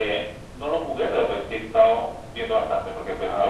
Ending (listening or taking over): listening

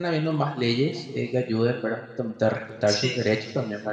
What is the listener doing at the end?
listening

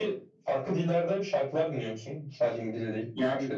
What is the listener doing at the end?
taking over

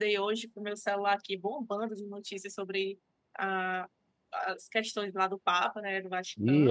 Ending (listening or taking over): taking over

